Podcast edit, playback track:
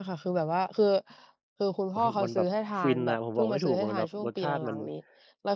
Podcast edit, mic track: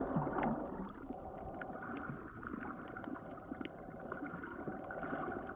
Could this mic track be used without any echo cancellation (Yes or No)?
Yes